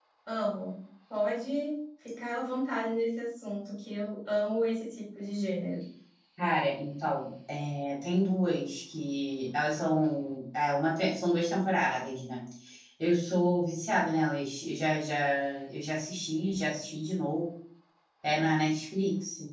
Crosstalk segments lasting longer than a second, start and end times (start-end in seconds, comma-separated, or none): none